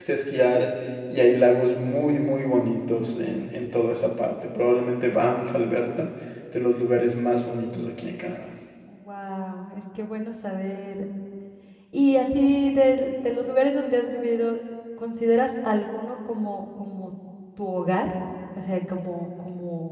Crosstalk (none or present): none